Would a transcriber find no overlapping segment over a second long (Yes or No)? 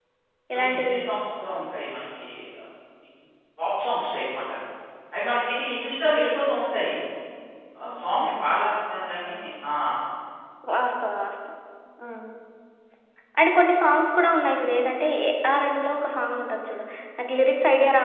Yes